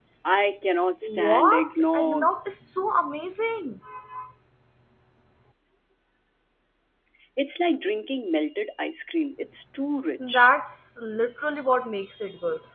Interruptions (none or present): present